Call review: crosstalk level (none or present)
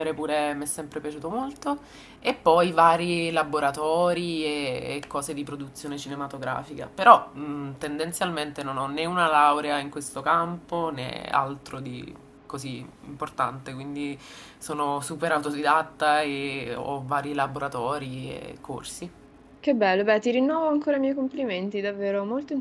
none